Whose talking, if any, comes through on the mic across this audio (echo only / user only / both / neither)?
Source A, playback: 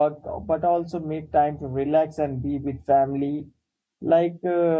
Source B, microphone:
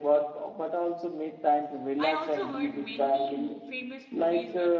both